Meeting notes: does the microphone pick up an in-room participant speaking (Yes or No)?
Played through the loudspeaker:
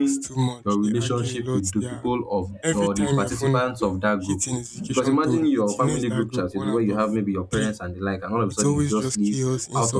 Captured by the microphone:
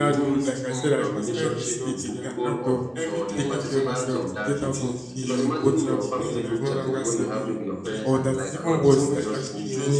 Yes